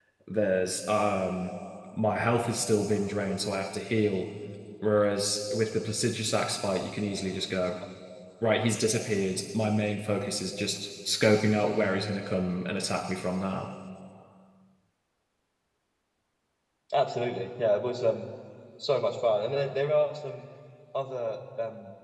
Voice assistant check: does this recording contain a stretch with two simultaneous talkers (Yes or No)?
No